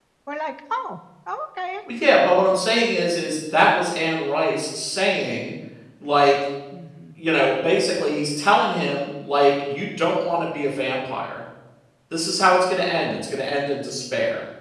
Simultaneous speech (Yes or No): No